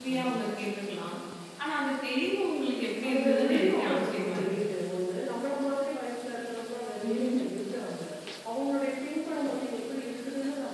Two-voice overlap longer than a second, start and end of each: 3.1-4.5

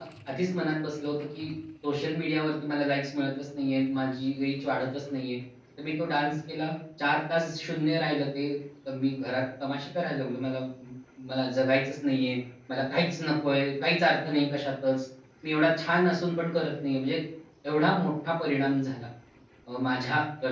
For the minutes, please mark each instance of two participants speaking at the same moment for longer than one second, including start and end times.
none

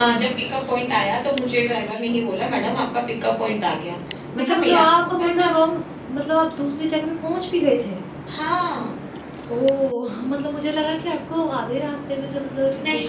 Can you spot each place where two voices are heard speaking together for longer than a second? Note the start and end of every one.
4.4-5.6

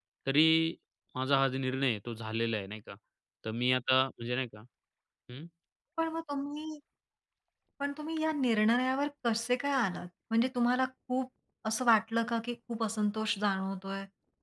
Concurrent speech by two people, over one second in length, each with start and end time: none

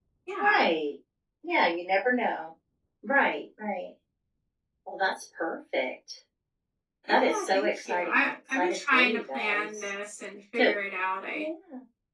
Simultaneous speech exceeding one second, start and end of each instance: 7.1-9.7

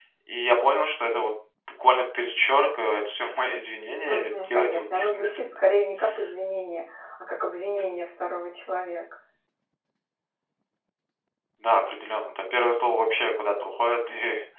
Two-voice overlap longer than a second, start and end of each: 4.1-5.6

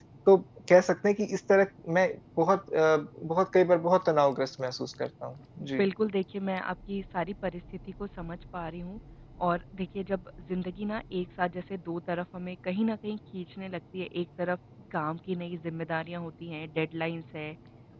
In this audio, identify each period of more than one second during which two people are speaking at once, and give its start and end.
none

